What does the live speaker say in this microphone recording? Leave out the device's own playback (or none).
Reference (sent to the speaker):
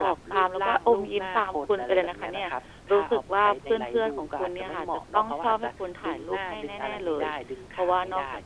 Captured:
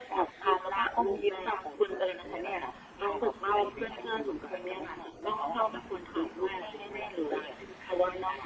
none